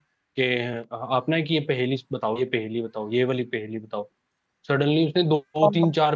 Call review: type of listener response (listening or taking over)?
listening